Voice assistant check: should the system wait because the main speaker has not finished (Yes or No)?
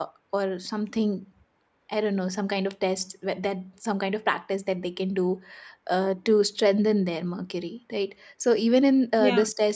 Yes